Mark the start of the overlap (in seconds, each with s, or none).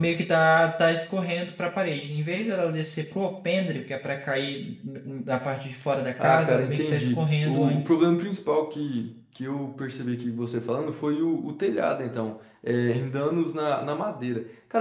6.2 s